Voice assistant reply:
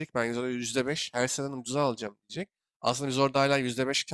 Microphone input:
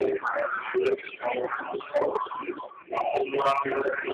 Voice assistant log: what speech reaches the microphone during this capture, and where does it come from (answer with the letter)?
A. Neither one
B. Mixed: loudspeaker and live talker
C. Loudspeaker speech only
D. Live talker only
C